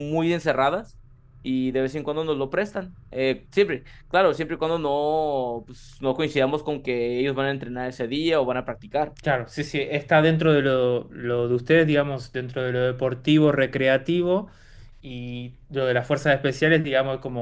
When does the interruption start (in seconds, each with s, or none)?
none